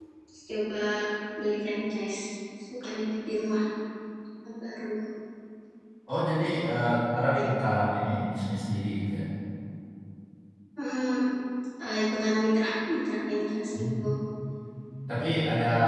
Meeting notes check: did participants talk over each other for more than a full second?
No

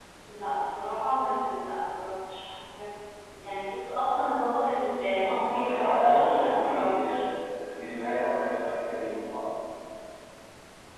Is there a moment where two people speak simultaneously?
Yes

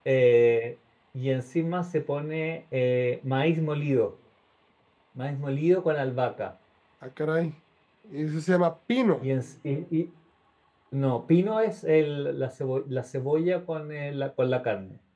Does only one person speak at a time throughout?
Yes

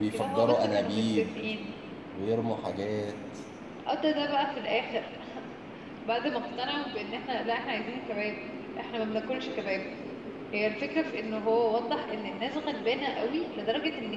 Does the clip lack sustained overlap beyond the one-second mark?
No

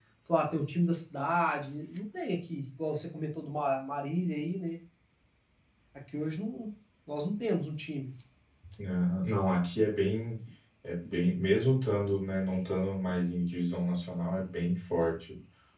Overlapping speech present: No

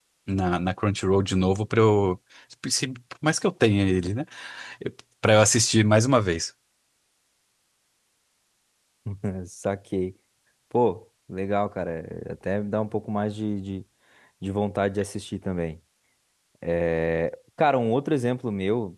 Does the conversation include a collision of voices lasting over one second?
No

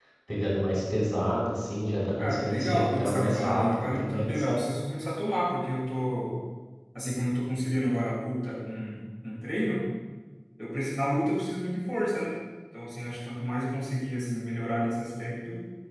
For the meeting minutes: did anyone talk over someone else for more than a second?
Yes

